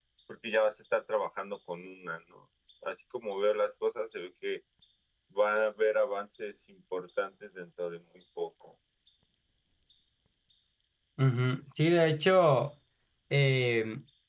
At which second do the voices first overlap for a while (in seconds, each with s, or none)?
none